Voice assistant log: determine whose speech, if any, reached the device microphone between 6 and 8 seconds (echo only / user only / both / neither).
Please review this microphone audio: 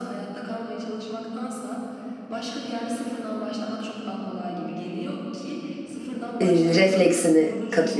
both